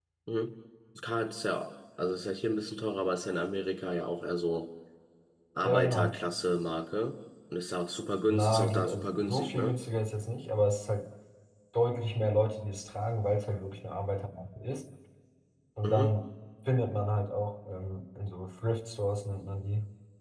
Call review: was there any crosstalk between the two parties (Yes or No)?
Yes